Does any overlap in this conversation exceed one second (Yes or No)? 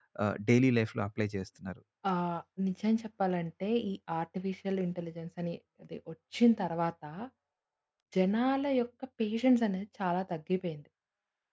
No